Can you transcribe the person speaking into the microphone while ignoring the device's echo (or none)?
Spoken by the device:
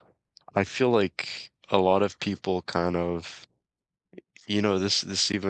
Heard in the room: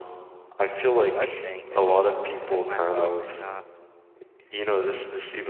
or budgeting, it's just putting myself in a